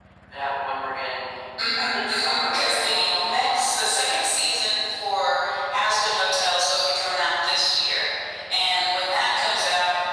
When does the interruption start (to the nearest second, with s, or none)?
2 s